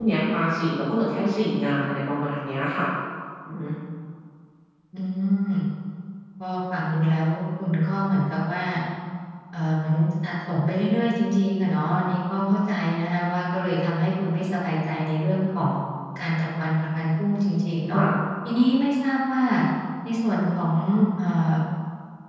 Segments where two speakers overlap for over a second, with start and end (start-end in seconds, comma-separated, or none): none